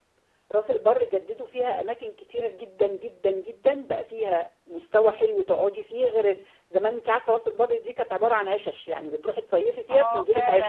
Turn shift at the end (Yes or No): Yes